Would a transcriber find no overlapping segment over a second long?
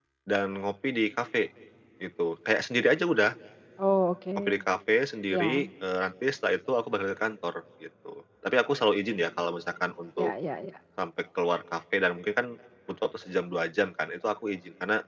Yes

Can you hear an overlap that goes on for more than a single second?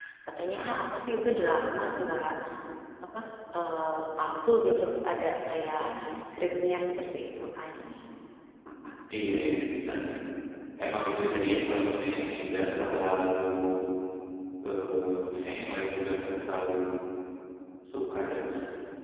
No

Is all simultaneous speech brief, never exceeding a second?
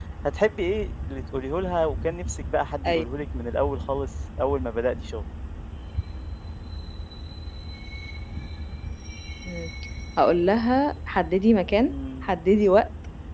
Yes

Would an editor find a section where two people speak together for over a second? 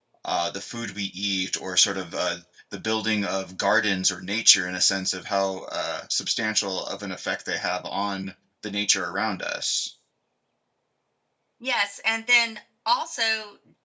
No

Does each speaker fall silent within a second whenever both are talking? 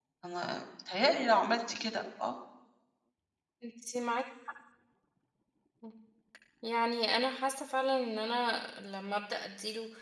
Yes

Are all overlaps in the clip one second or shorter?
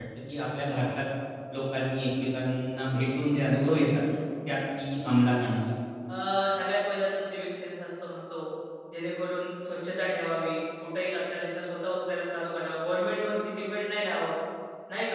Yes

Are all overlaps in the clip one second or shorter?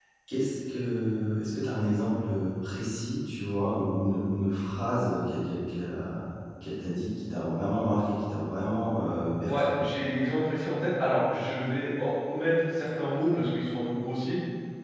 Yes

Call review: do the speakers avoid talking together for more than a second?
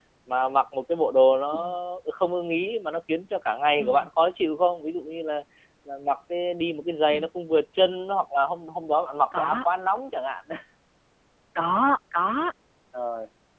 Yes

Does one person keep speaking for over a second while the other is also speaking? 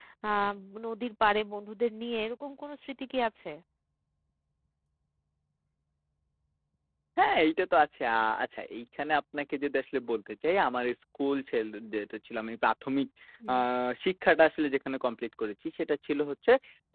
No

